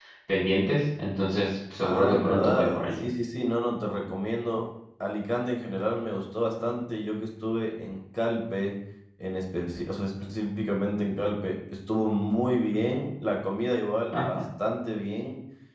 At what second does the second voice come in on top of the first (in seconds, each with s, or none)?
1.8 s